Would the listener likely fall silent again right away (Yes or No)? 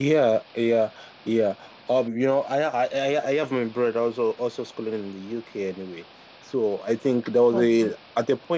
Yes